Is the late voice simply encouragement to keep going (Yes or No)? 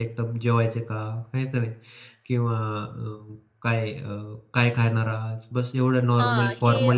No